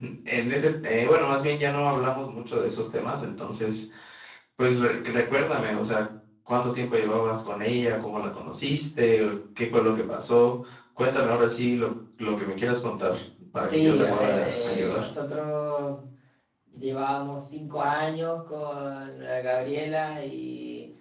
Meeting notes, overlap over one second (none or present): present